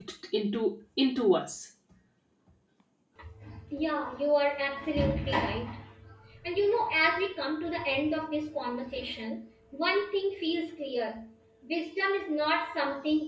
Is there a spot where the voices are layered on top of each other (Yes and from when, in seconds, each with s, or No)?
No